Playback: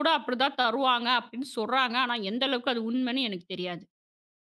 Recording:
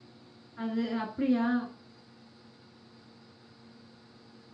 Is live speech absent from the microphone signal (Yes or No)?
No